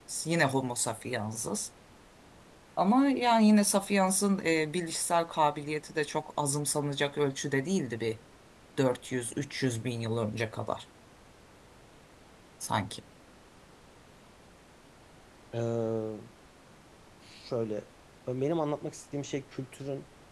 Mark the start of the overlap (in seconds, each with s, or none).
none